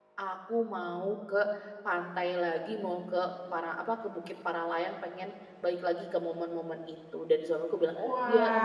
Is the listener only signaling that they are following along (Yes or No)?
No